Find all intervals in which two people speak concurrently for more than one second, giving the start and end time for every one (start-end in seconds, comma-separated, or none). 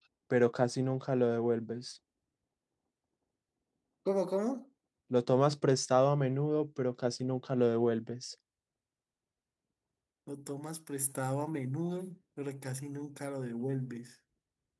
none